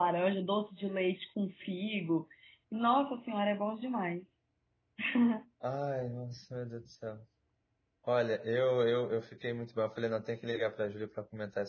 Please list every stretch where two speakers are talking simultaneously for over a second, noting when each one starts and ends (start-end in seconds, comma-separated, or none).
none